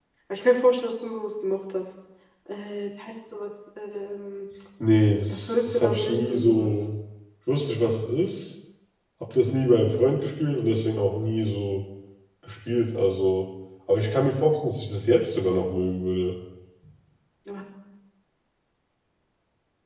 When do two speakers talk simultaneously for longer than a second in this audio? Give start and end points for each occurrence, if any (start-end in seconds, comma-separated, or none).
5.3-6.8